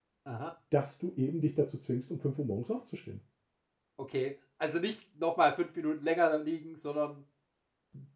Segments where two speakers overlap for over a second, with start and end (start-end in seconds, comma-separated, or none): none